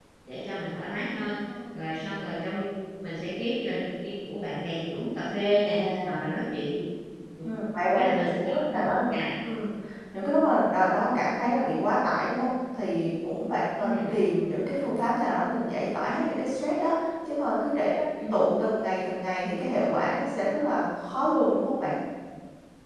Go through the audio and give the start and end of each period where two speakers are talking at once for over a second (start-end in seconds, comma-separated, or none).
7.9-9.1